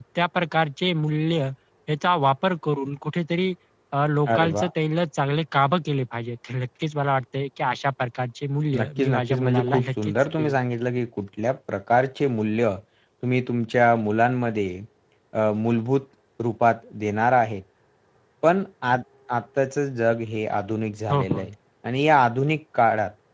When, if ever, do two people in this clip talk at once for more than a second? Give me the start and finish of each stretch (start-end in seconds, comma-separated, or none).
8.8-10.6